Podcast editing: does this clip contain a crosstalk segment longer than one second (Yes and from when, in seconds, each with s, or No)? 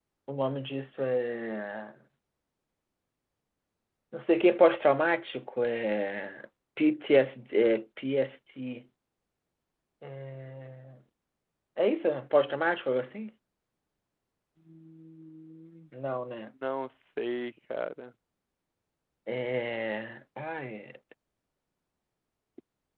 No